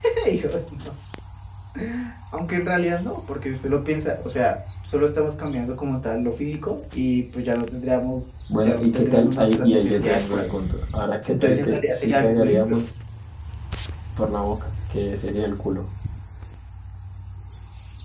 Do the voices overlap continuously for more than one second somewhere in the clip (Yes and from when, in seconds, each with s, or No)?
Yes, from 8.6 s